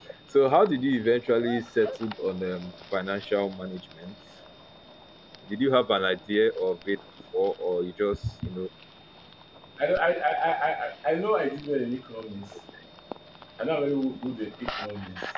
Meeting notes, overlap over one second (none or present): none